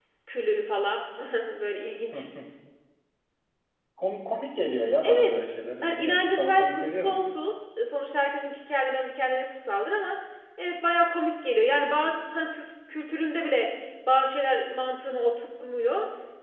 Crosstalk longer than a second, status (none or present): present